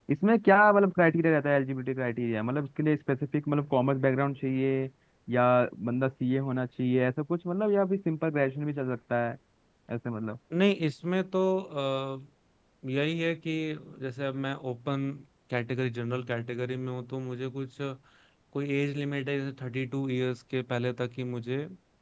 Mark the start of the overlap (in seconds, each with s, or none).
none